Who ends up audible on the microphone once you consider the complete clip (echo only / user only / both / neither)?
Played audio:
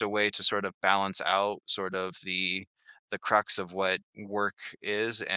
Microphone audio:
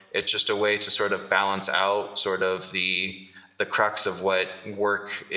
echo only